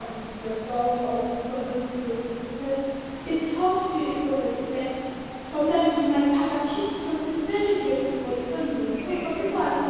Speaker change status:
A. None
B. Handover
A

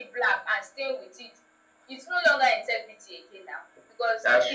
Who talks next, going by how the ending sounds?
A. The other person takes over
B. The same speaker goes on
B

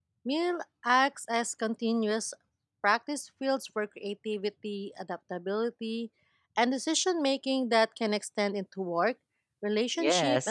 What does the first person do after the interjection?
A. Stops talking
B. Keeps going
A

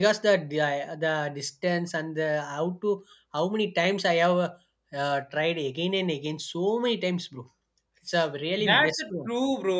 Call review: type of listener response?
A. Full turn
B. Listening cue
A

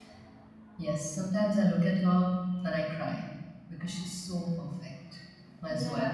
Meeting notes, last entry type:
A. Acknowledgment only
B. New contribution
B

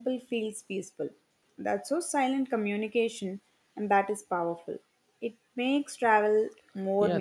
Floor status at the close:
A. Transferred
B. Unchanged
A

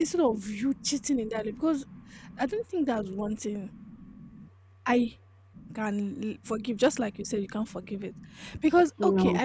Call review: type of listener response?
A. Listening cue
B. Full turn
A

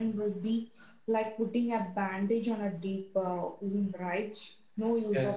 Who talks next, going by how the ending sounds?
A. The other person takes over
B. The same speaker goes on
A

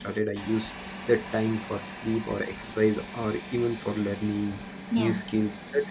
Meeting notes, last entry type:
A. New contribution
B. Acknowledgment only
B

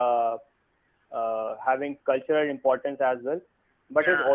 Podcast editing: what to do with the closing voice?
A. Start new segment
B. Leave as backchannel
B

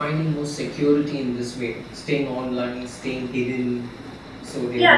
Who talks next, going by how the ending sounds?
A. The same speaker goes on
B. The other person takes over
B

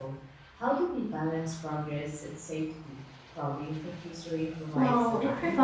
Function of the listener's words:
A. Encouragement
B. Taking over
B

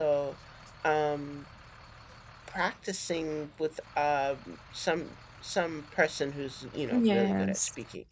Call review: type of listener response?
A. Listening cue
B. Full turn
A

